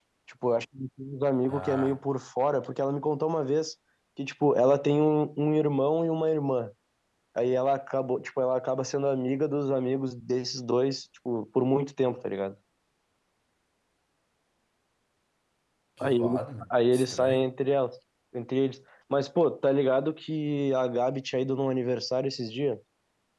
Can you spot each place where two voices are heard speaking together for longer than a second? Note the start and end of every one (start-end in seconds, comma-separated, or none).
16.0-17.4